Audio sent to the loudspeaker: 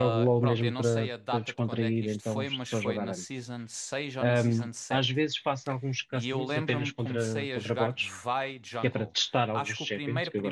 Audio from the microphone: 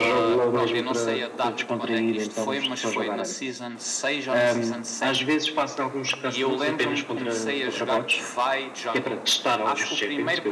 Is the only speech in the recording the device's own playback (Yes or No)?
Yes